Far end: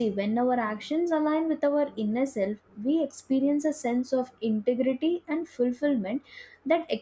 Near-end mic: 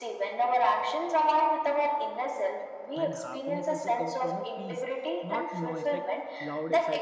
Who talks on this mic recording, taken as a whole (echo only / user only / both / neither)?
both